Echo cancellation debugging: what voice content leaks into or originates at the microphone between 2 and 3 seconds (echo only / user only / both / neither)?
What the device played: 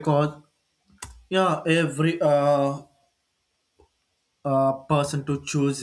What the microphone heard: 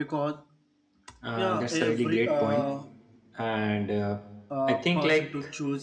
both